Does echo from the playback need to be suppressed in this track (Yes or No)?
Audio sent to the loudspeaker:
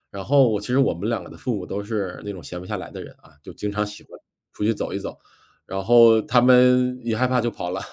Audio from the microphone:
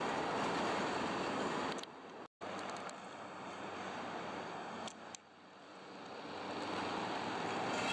No